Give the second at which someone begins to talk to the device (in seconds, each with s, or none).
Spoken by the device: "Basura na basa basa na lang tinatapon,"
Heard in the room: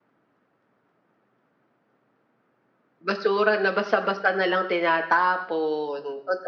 none